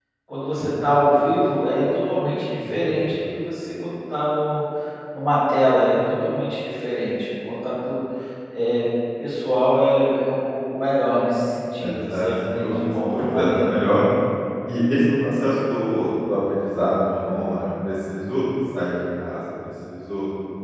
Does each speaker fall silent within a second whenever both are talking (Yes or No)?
No